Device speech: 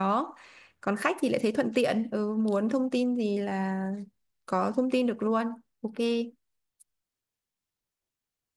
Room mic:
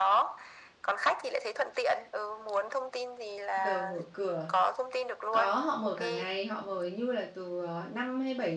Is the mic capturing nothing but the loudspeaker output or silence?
No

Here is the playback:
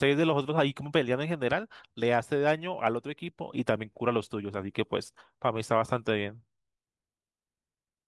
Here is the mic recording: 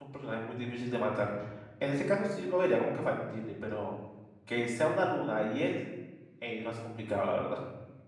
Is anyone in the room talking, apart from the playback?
Yes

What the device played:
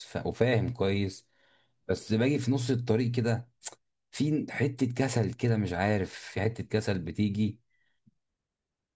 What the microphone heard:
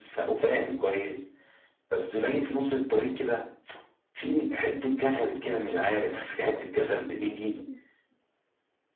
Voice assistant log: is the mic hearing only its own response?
No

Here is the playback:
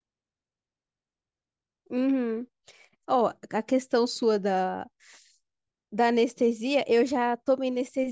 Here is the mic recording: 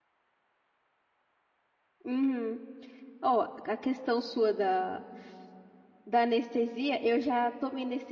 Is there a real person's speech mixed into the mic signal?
No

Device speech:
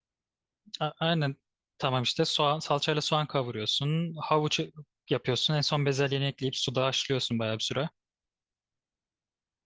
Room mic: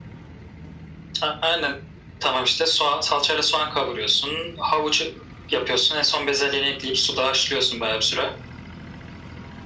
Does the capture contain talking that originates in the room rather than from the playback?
No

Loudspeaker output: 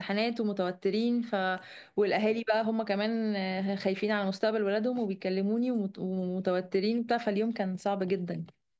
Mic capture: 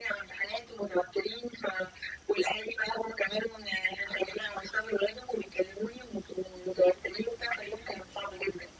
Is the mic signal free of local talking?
Yes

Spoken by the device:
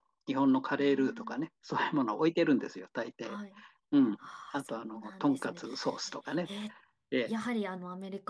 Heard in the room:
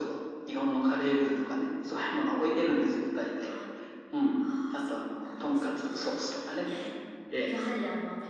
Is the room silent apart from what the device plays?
Yes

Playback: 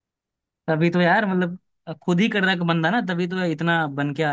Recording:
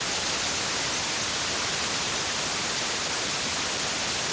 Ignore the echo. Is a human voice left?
No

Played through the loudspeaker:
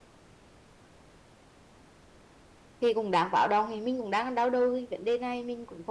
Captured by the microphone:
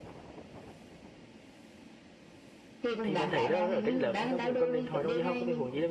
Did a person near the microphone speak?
Yes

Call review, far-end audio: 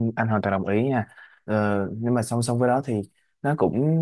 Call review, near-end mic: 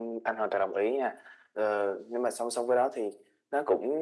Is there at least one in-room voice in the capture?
No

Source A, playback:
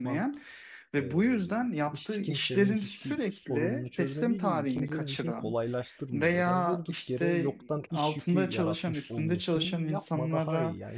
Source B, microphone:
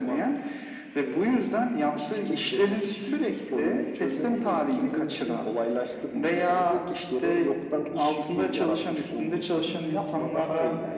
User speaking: No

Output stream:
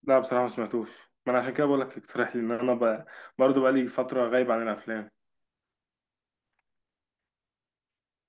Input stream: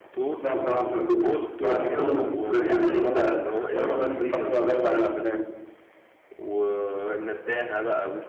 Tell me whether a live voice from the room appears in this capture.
Yes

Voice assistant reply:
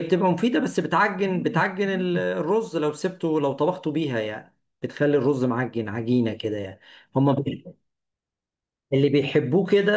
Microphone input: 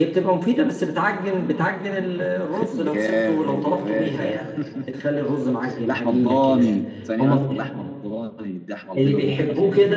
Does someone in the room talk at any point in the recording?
Yes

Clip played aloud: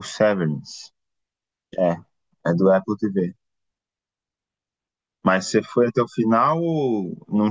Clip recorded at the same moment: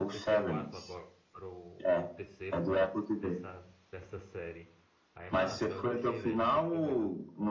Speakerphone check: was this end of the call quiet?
No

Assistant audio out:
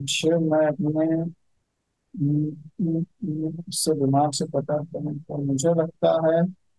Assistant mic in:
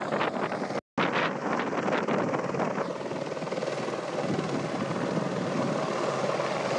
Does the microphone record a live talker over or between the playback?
No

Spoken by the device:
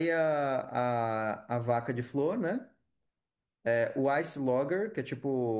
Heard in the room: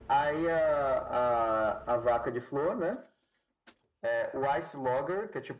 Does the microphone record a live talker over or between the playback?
No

